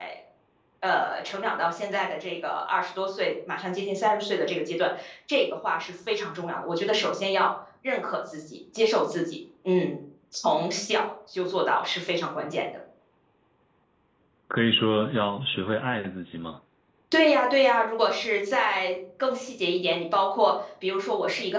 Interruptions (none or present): none